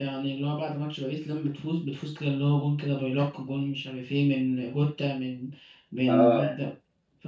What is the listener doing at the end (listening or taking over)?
listening